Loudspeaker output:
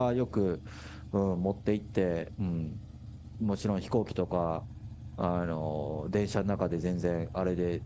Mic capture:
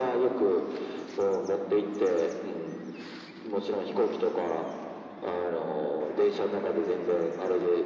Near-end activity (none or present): none